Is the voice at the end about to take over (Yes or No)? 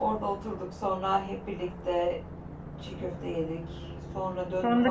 Yes